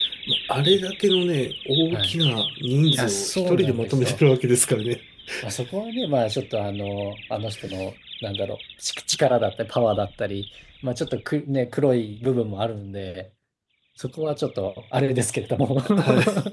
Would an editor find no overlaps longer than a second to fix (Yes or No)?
No